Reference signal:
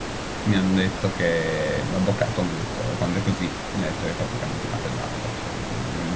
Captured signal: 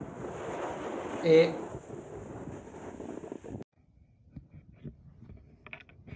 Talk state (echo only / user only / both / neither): user only